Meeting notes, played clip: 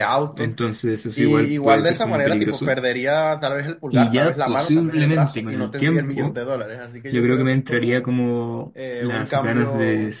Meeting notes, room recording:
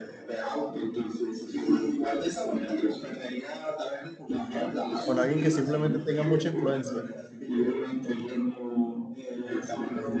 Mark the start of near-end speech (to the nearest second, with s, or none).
5 s